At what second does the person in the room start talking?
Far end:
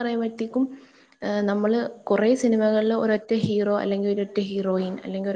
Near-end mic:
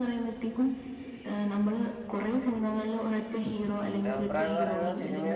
4 s

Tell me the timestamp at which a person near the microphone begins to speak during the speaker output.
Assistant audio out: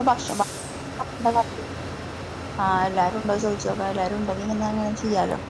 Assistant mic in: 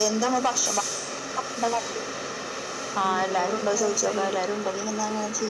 3 s

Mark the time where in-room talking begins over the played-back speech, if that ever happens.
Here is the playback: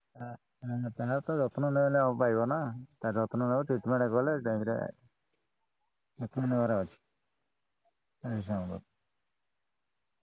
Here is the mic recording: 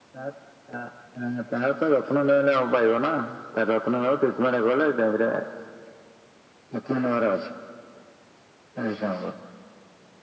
none

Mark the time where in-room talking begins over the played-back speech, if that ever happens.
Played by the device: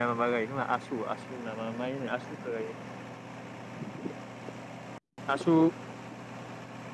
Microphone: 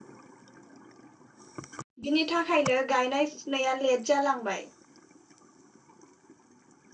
2 s

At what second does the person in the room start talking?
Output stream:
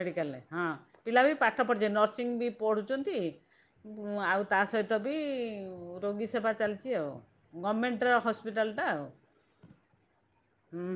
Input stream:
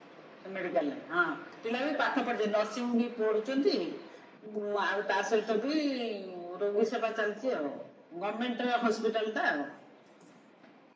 none

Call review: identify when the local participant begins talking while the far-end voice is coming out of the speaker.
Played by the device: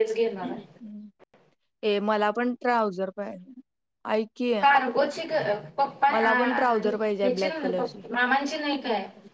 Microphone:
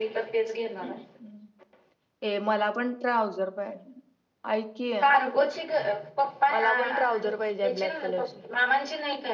none

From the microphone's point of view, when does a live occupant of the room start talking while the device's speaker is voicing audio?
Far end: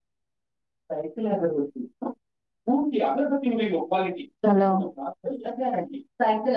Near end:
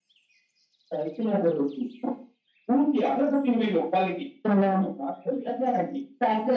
none

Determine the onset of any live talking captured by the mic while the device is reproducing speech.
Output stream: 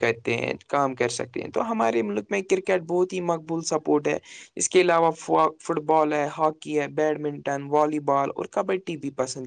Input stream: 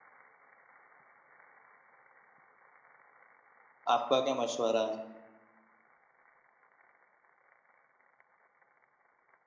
4 s

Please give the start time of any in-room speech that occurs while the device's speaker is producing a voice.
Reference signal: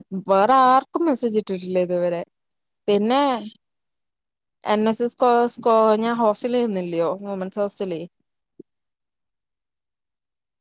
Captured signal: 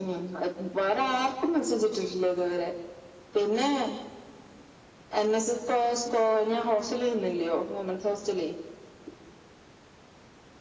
none

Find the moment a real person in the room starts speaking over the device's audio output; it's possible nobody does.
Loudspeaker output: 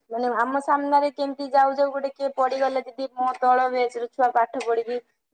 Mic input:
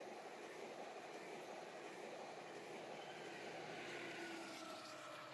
none

